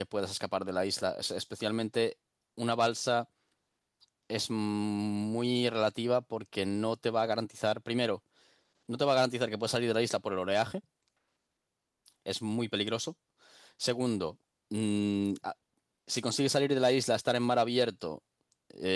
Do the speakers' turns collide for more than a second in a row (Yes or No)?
No